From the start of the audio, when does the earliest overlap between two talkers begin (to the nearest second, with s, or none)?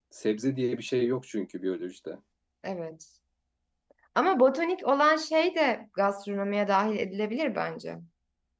none